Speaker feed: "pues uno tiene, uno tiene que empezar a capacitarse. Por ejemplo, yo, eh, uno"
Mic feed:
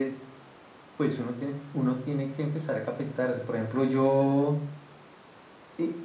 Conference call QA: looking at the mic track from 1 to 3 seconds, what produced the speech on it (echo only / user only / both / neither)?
echo only